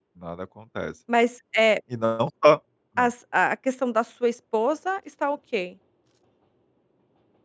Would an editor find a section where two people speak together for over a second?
No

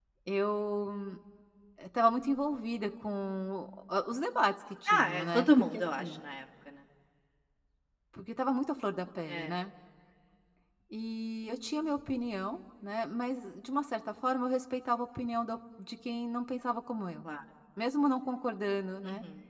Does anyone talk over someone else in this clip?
Yes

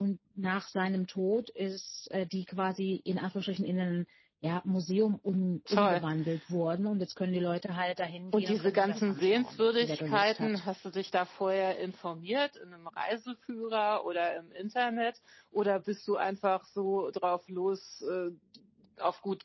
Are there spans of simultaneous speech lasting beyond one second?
Yes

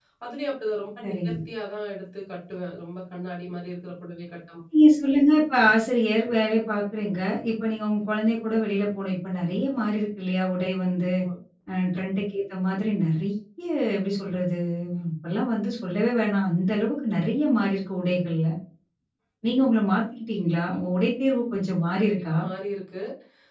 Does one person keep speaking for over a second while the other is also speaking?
No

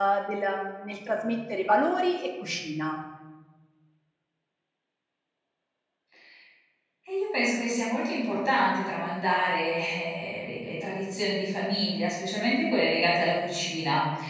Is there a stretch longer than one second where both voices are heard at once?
No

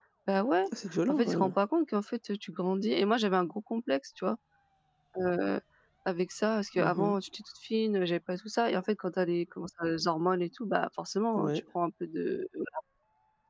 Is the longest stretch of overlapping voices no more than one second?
Yes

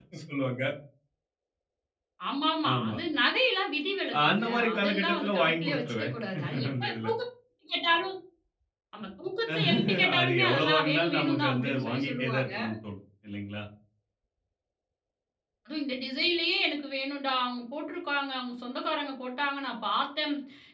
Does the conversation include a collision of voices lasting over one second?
Yes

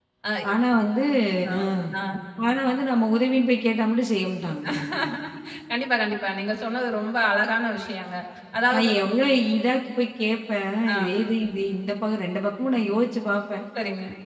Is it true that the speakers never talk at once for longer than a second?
Yes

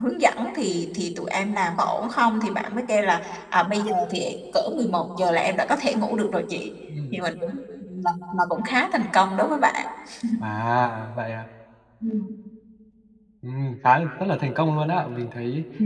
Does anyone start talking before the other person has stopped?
No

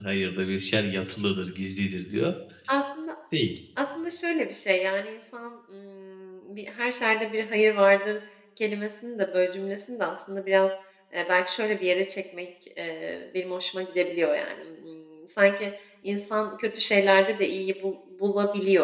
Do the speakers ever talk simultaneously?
No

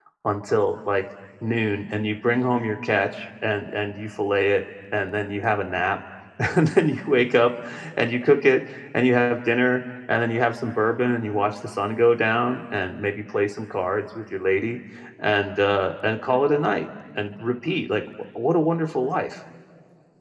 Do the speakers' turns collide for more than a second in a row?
No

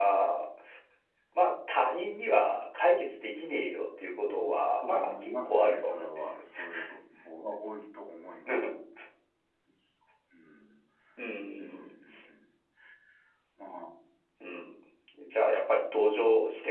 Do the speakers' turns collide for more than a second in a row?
Yes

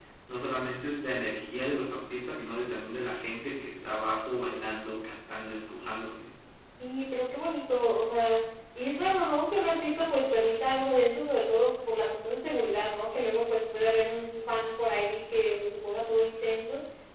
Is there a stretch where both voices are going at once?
No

